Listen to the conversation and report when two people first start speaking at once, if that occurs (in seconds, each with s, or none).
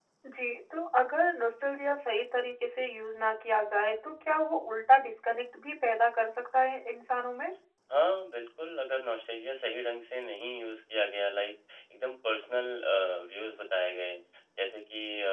none